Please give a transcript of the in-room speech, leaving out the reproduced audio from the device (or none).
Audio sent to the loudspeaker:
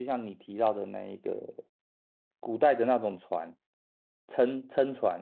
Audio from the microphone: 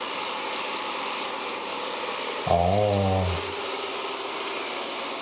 哦，